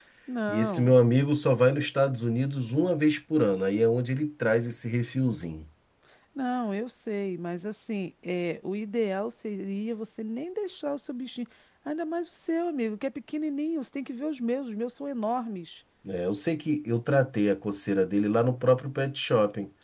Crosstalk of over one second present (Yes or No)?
No